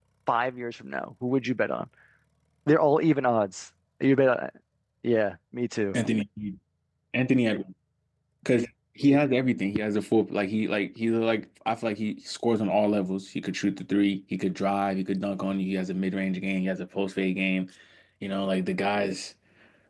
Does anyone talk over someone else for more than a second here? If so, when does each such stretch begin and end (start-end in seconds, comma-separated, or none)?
none